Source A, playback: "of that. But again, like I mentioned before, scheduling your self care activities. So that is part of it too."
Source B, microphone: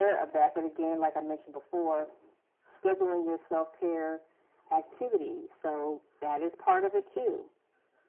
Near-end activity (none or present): none